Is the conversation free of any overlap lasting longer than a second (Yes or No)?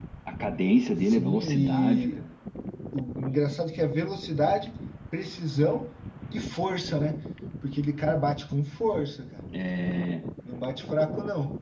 No